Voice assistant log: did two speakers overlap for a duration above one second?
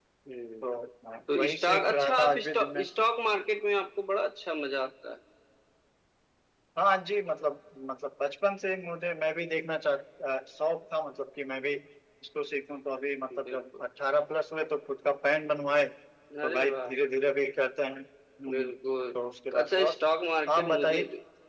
Yes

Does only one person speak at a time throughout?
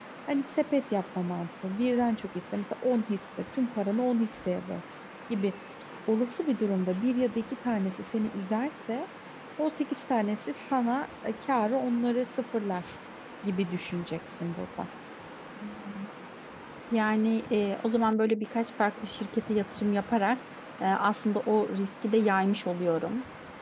Yes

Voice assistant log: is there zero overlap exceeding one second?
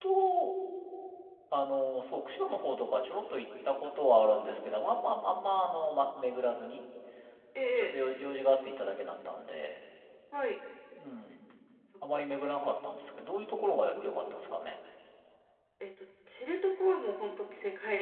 Yes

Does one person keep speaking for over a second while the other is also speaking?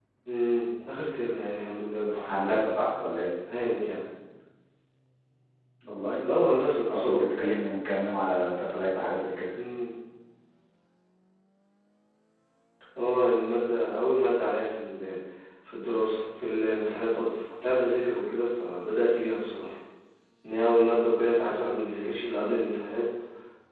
No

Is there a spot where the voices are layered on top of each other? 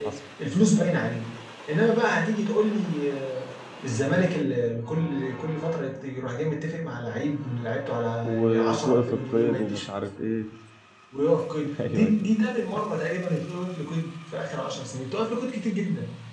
Yes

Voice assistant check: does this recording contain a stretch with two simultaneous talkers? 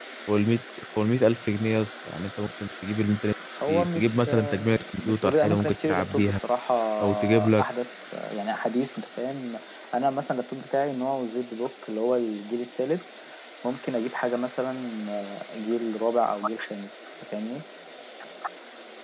Yes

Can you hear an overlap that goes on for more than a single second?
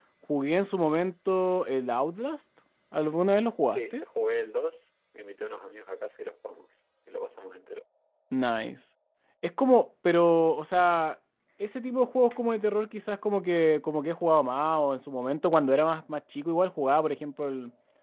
No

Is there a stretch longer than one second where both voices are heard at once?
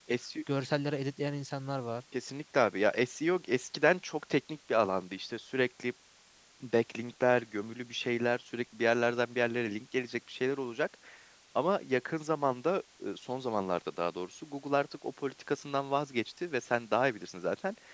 No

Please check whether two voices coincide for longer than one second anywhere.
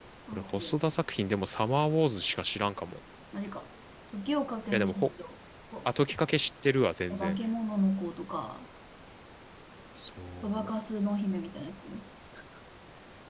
No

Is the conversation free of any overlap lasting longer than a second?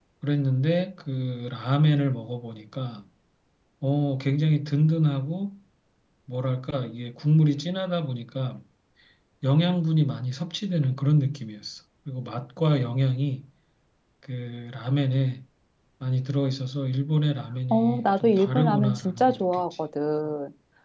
No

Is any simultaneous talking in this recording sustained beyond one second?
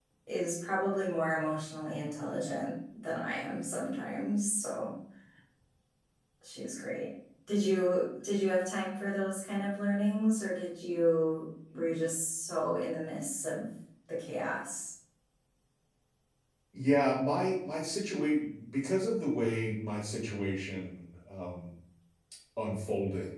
No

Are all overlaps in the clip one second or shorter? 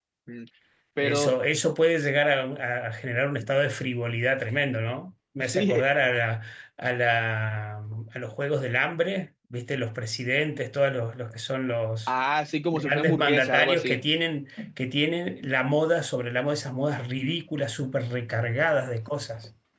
No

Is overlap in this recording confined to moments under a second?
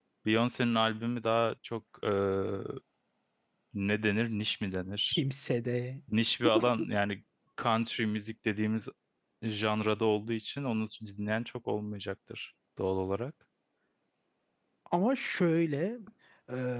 Yes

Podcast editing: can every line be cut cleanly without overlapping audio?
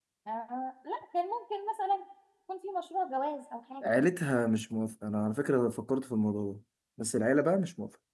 Yes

